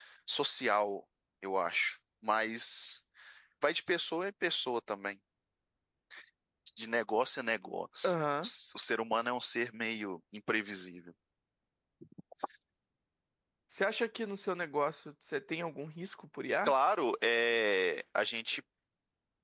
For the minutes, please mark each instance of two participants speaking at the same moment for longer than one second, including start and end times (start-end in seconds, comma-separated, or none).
none